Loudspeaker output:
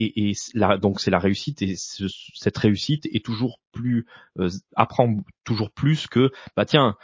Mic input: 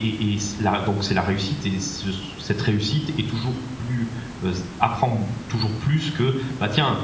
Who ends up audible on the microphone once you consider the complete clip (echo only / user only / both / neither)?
echo only